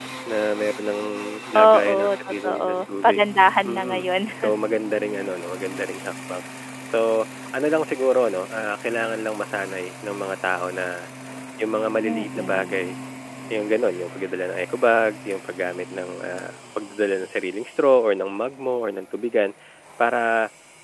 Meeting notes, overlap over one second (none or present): present